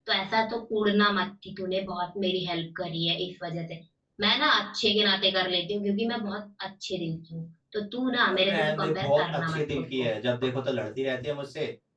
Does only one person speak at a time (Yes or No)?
No